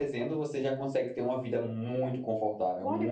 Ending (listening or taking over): taking over